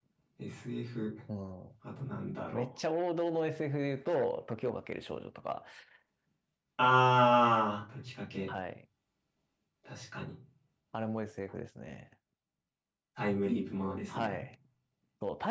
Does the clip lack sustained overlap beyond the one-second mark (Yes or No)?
Yes